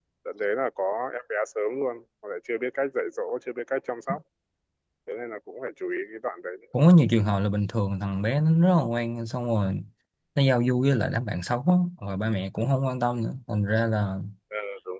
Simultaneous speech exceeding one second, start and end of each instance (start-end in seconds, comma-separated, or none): none